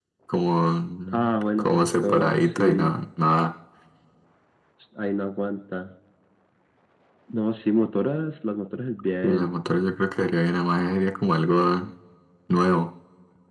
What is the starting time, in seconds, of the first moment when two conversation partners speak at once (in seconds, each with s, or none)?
1.1 s